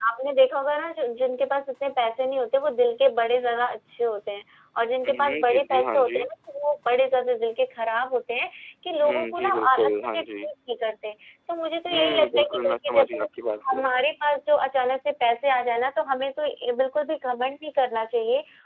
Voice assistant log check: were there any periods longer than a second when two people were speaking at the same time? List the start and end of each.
5.0-6.3, 9.0-10.5, 11.9-13.3

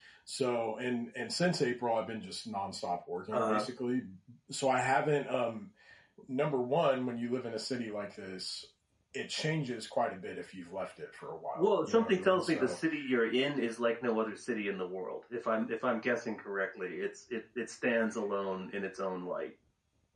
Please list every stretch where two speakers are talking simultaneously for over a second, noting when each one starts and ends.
11.6-12.8

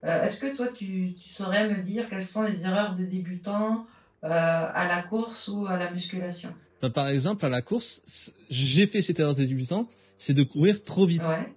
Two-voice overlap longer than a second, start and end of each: none

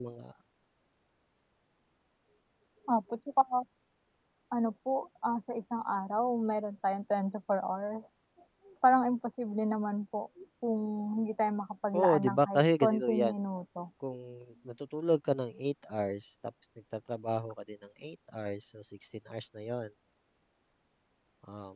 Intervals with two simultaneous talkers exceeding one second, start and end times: 11.9-13.3

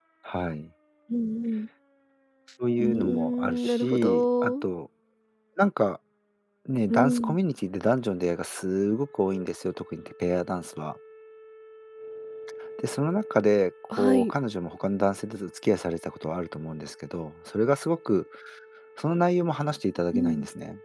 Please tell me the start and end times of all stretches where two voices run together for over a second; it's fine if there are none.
2.8-4.5

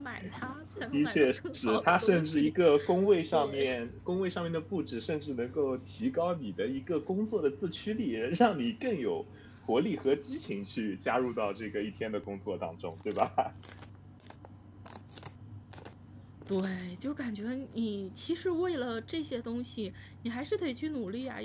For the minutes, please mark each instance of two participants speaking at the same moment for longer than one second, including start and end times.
0.9-2.5

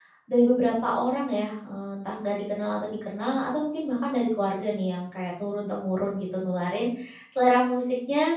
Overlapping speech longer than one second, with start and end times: none

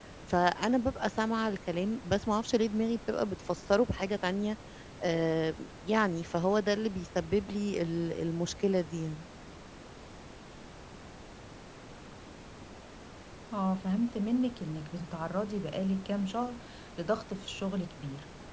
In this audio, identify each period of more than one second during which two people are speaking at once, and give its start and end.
none

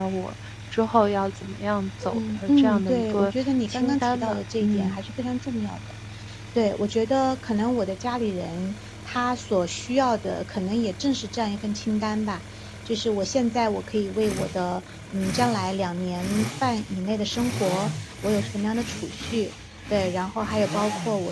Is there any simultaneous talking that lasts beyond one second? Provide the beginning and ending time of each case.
2.1-5.0

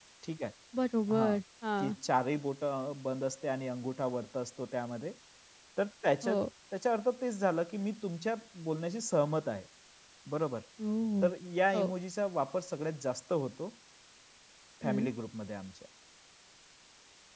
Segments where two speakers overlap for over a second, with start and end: none

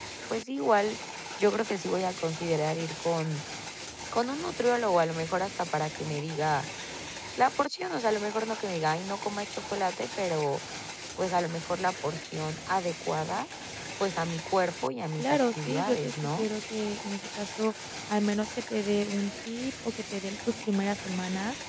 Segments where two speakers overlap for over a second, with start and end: 15.2-16.4

